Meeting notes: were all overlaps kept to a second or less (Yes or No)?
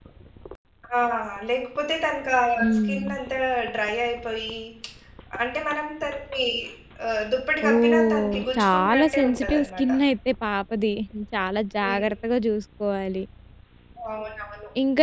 No